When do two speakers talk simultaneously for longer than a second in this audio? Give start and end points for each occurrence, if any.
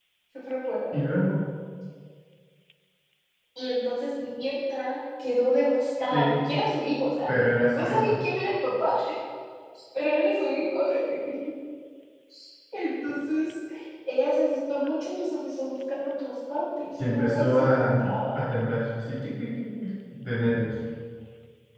17.1-18.4

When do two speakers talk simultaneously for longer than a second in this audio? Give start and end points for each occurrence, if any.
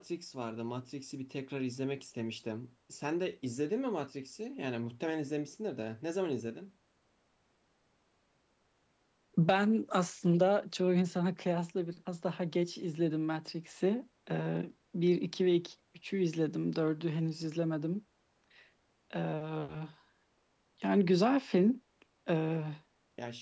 none

